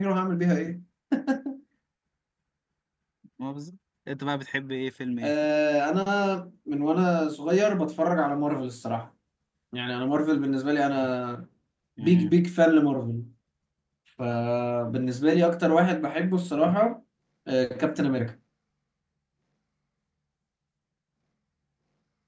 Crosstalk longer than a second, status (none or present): none